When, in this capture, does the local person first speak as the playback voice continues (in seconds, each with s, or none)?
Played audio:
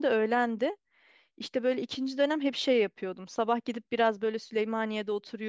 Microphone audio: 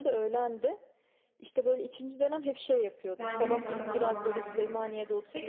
3.2 s